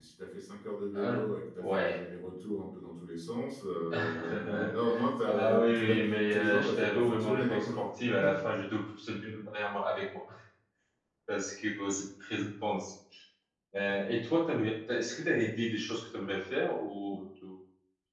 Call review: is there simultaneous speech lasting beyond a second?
Yes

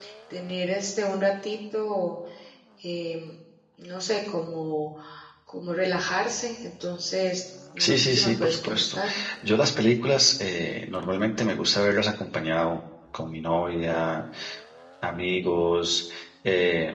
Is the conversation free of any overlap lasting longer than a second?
No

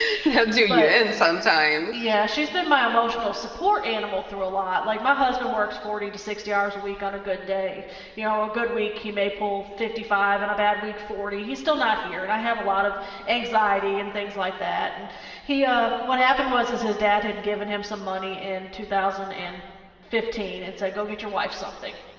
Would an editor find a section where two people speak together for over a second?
No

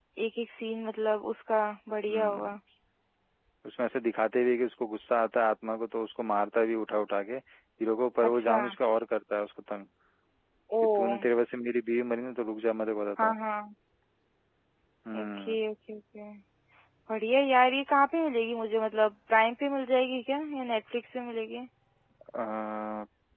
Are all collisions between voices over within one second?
Yes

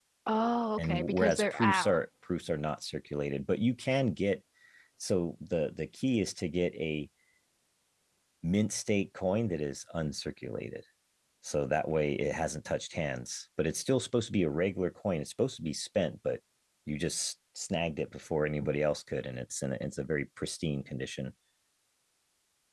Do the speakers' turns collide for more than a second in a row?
Yes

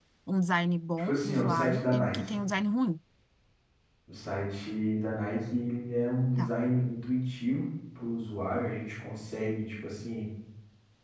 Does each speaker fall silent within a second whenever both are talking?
No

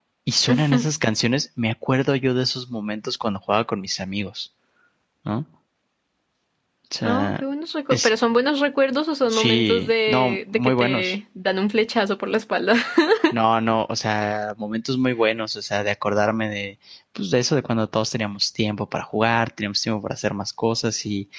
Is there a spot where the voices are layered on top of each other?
Yes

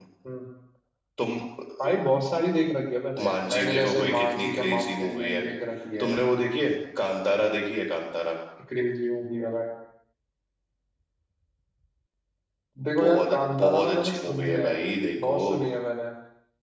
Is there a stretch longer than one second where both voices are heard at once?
Yes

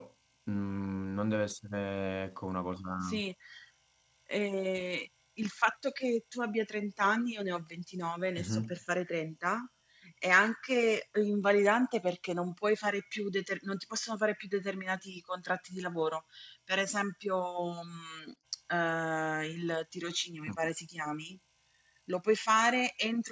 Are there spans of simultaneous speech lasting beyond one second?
No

